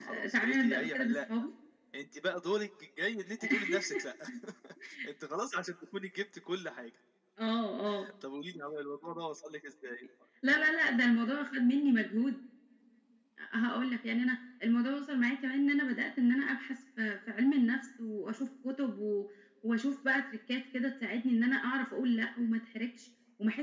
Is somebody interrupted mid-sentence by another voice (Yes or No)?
Yes